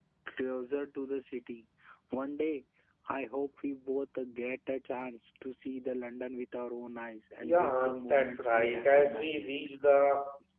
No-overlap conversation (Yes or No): No